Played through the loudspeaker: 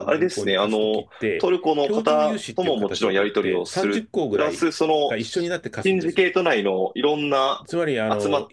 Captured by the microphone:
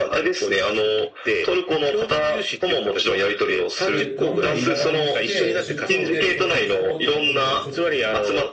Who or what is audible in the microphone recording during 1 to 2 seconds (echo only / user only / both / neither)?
echo only